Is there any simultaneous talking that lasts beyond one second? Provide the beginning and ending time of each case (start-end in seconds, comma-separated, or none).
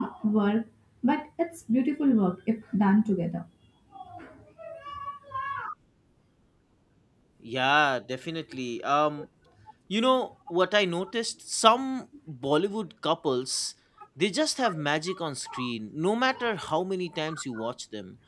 none